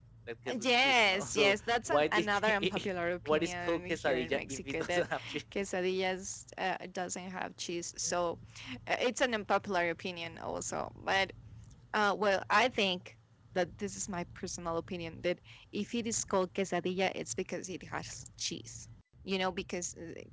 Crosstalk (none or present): present